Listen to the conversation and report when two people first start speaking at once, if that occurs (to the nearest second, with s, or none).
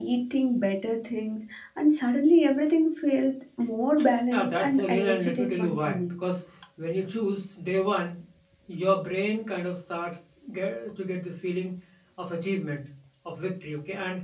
4 s